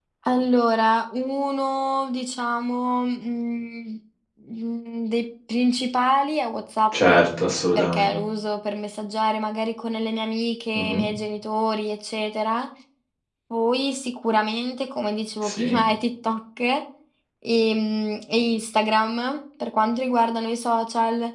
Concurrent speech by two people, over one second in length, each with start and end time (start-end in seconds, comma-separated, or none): none